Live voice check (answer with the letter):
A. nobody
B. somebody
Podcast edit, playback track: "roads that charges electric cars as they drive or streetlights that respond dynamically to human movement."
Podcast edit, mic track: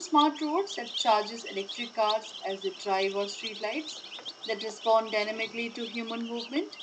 A